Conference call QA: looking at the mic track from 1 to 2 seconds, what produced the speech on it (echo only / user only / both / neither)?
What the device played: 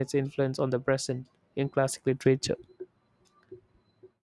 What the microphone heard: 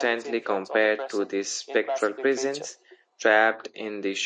both